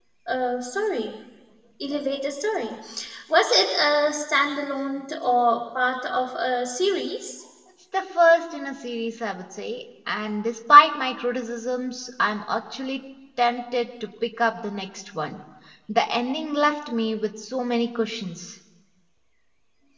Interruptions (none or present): none